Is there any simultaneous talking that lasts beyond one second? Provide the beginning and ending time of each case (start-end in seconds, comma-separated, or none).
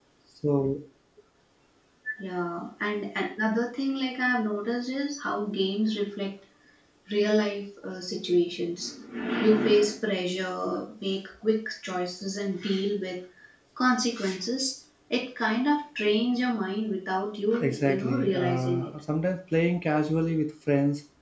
17.6-18.9